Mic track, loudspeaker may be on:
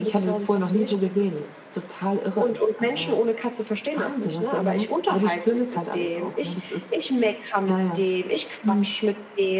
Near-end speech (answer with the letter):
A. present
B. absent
B